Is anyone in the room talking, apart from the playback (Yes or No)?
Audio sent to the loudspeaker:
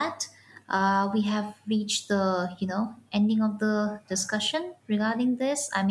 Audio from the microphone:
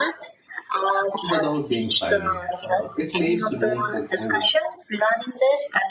Yes